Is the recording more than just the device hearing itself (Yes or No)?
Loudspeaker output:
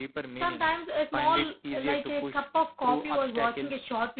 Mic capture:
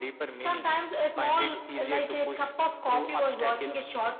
No